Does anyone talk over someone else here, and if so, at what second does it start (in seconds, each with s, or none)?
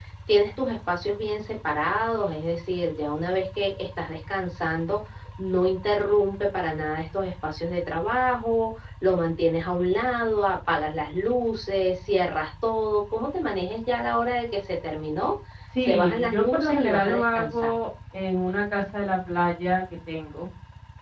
15.8 s